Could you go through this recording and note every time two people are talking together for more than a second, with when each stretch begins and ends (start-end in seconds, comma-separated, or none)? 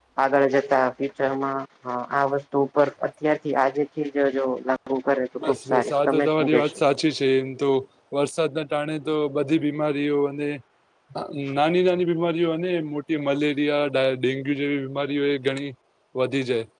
5.5-6.8